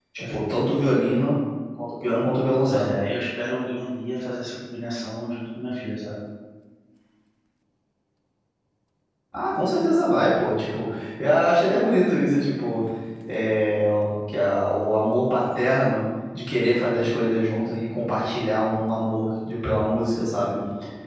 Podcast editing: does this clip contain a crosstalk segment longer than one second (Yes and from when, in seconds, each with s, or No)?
No